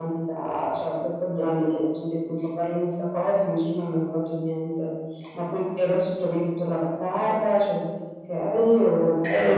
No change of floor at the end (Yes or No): No